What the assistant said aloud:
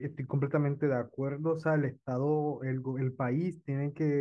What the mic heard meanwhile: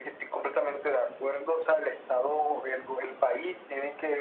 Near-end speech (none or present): none